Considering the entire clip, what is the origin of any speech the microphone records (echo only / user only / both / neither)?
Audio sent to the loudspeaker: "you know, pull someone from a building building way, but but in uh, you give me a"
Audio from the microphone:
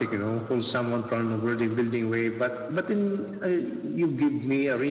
echo only